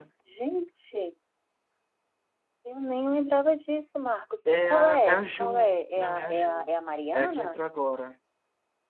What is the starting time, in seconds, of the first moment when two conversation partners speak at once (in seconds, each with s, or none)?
4.7 s